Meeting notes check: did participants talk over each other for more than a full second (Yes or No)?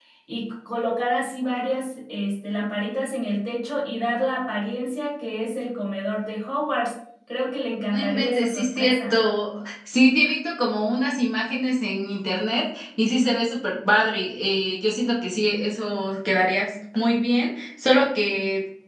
Yes